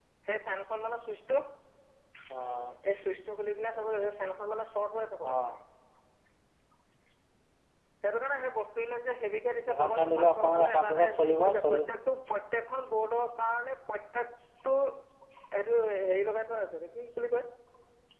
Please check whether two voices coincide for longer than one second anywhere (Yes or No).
Yes